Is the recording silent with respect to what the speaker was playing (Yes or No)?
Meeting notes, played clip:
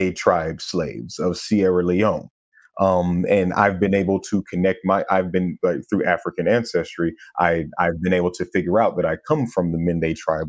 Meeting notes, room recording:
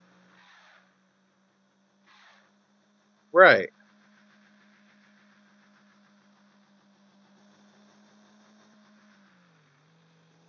Yes